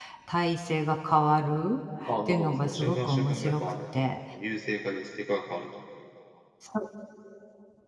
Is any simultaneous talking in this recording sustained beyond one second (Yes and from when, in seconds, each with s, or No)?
Yes, from 2.1 s